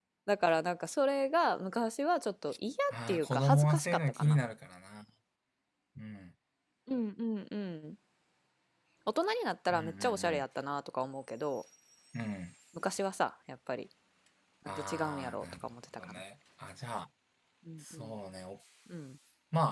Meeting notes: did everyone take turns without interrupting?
No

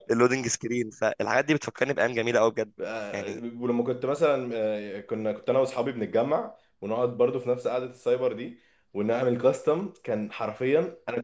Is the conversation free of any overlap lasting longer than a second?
Yes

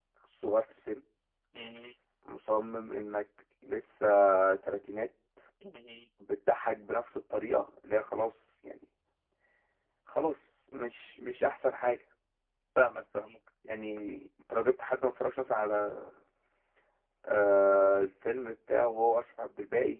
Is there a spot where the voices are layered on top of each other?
No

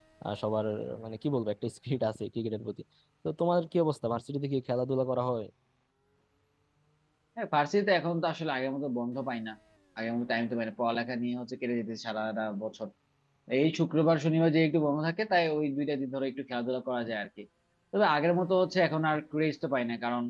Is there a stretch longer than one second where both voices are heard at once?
No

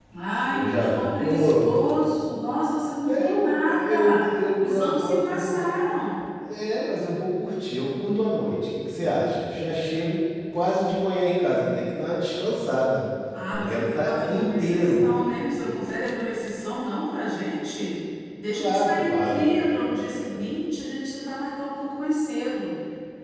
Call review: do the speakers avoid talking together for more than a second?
No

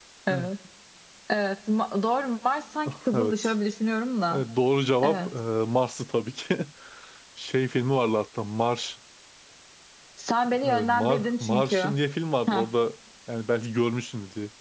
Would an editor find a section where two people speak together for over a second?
Yes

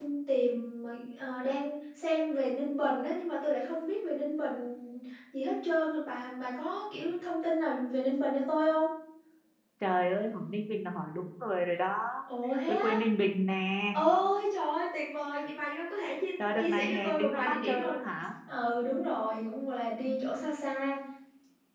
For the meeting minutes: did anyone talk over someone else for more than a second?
Yes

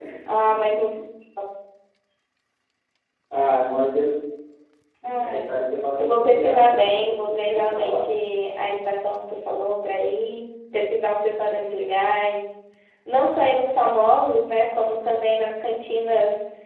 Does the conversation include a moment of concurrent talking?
Yes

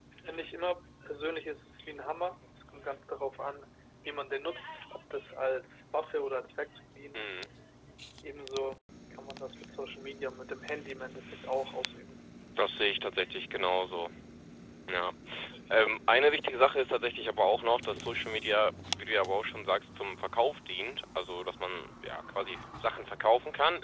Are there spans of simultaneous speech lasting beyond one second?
No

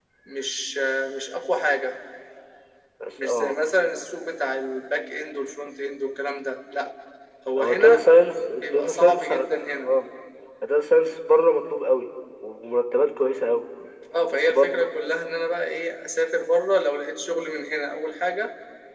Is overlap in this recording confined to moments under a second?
No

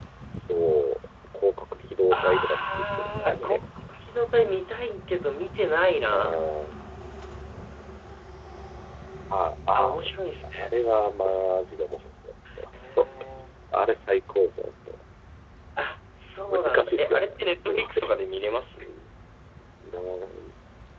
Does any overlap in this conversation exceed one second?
Yes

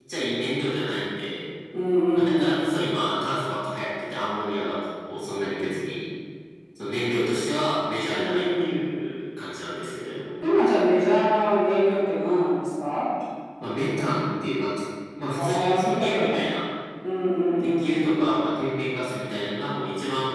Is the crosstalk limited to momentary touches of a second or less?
No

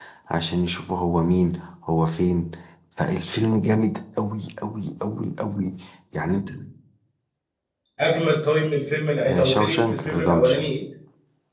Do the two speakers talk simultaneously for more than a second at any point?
Yes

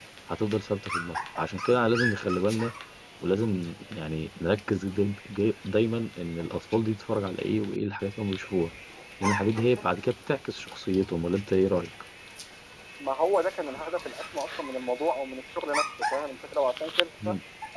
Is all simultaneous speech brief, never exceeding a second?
Yes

